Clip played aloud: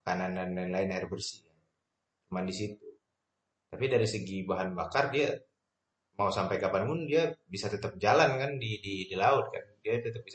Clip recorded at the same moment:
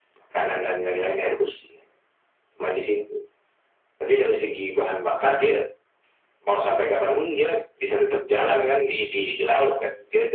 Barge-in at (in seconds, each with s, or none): none